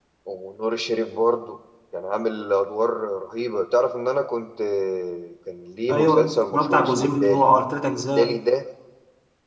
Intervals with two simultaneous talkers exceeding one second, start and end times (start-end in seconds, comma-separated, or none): 5.9-7.5